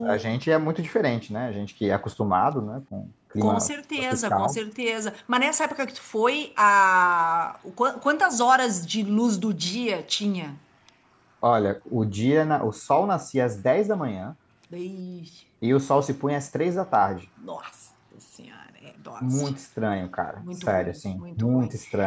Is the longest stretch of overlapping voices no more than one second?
No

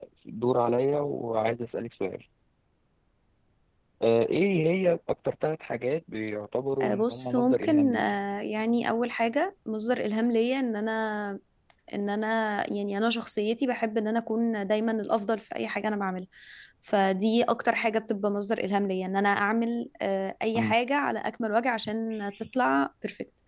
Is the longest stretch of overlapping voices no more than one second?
No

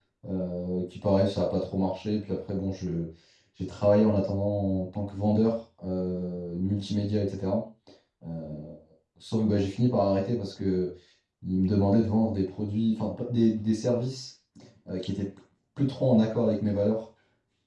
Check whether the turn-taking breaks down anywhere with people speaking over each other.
No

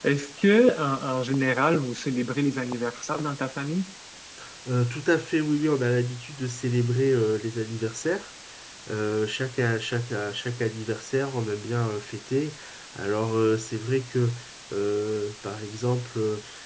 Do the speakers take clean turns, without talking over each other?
Yes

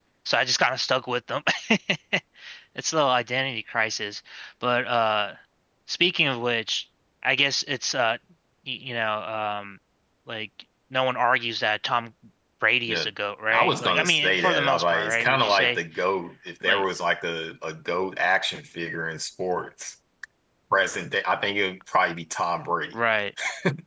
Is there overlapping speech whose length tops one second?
Yes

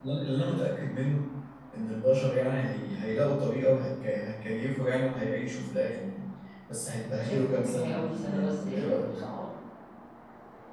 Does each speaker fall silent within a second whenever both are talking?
No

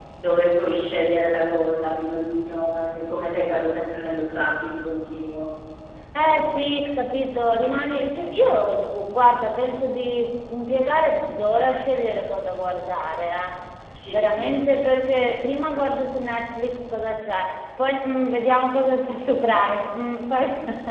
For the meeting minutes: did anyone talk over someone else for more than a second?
No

